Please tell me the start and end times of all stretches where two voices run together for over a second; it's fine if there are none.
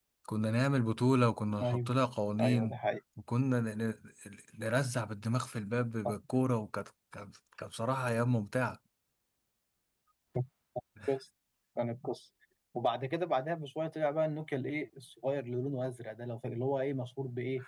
none

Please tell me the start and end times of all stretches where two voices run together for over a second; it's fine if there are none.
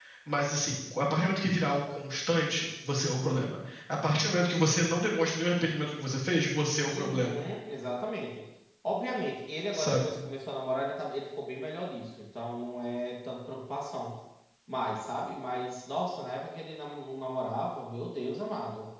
none

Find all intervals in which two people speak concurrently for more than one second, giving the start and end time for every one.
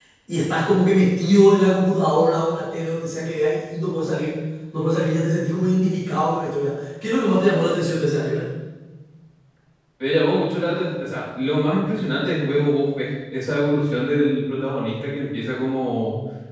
none

